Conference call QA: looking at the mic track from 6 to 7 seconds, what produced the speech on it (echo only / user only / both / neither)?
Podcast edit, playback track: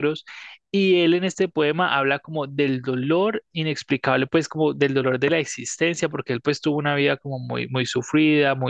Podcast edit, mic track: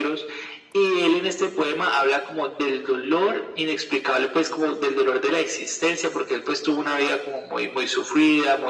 echo only